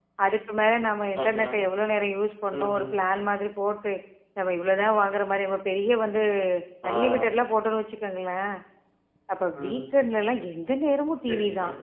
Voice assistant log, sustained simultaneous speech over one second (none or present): none